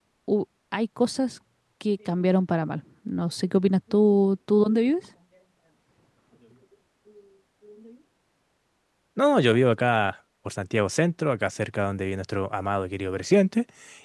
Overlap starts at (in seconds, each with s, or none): none